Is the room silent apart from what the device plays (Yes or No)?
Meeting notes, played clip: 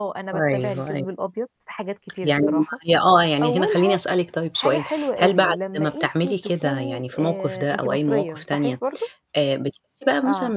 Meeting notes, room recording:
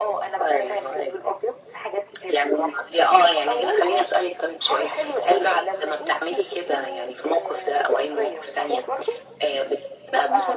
Yes